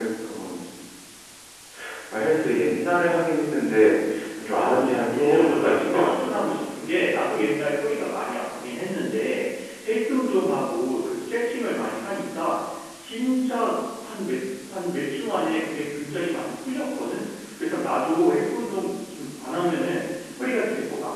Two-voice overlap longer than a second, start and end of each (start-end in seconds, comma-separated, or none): 4.6-6.2